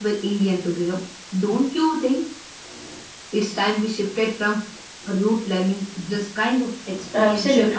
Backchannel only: No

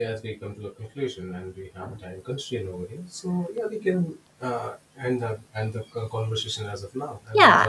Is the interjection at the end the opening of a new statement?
Yes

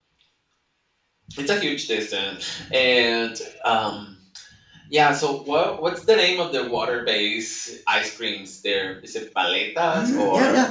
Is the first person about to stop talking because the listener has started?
Yes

